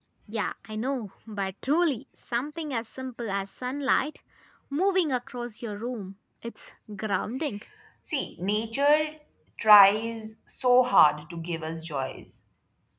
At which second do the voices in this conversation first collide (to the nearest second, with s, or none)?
none